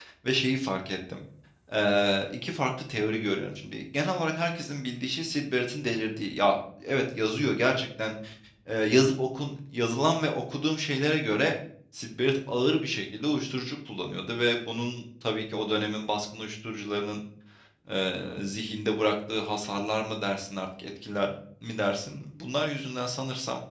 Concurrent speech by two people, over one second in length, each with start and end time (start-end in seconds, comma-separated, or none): none